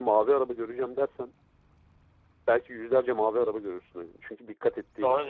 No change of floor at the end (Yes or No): No